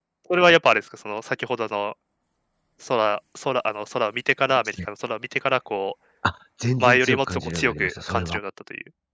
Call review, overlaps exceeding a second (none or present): present